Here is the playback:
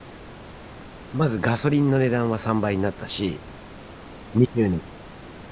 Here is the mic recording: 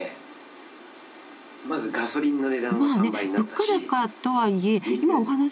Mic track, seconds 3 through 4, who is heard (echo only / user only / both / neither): both